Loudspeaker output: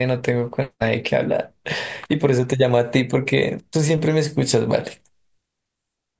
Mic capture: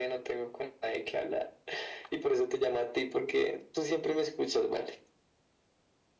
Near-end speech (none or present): none